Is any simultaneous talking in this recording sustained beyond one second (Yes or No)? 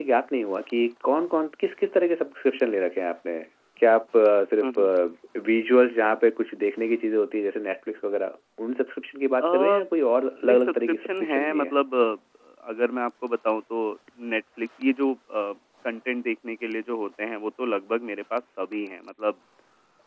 Yes